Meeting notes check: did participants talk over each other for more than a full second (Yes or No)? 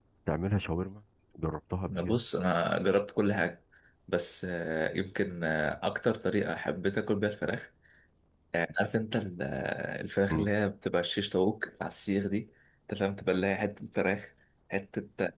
No